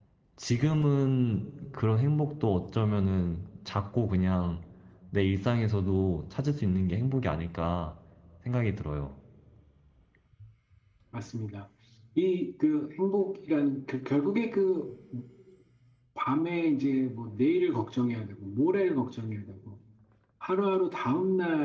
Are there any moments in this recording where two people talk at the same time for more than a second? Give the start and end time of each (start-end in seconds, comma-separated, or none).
none